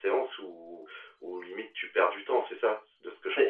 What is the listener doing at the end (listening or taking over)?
taking over